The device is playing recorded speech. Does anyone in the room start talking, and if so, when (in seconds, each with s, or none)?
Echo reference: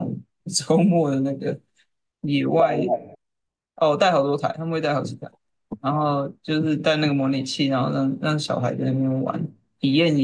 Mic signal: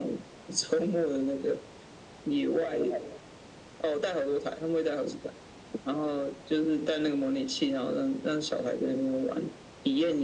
none